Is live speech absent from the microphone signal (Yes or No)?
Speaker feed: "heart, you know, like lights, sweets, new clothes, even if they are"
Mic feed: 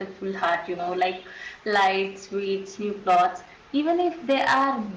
Yes